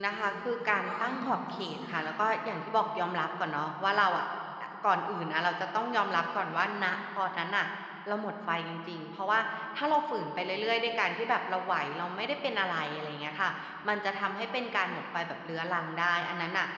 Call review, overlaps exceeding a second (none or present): present